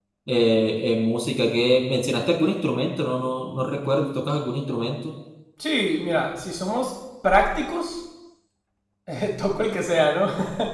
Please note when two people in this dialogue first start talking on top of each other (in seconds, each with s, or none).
none